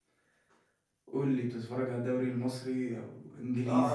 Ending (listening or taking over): taking over